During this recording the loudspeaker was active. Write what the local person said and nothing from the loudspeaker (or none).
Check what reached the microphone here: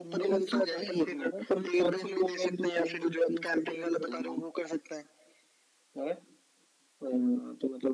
none